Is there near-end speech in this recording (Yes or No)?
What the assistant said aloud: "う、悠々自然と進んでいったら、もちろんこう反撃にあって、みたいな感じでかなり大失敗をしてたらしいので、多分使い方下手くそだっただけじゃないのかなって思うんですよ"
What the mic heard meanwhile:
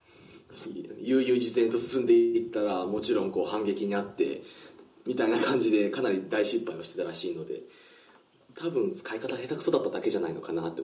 No